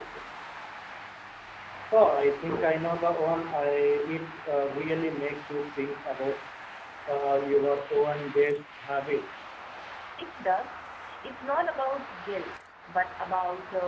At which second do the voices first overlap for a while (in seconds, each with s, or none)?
none